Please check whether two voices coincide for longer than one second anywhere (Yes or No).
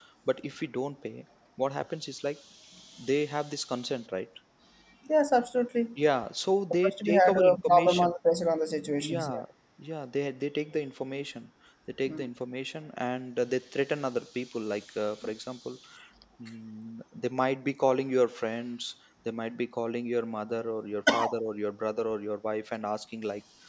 Yes